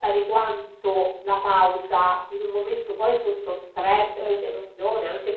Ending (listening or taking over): listening